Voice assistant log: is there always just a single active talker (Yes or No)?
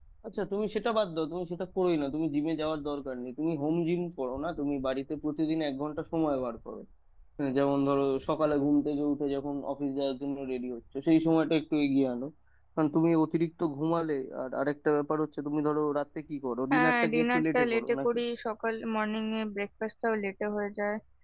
No